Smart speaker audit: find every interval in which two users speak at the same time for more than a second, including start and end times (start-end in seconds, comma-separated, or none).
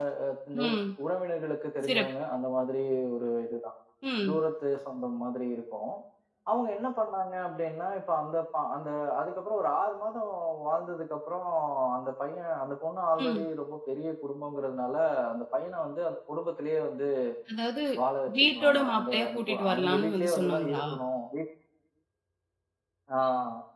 18.4-20.8